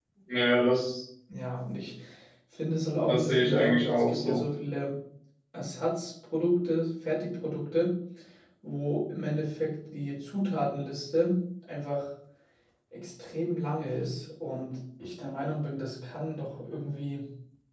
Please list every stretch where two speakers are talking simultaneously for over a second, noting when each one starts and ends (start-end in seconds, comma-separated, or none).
3.1-4.4